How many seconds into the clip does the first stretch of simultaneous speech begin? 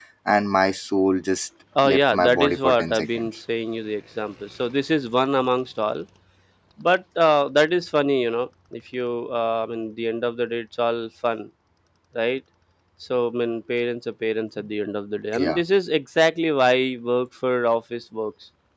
1.8 s

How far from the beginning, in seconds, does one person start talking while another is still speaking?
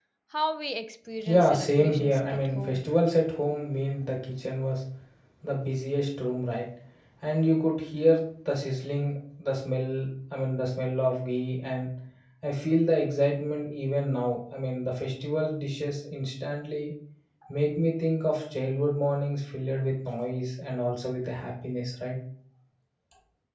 1.2 s

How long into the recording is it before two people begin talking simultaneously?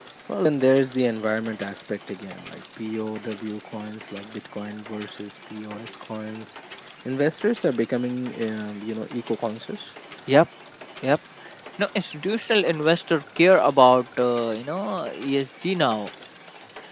none

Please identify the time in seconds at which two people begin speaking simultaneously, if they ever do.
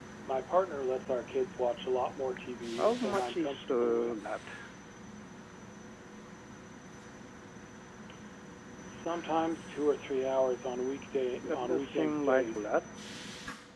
2.8 s

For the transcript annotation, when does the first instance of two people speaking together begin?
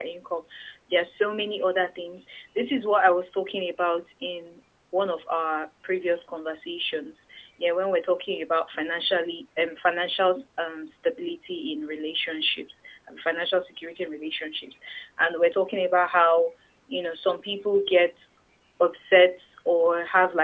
none

